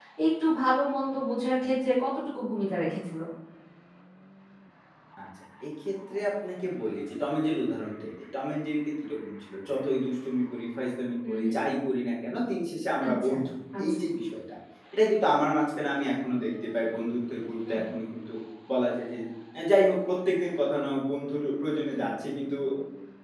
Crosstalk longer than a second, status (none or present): none